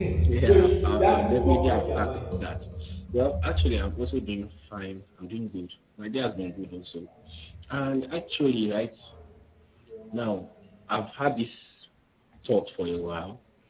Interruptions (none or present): present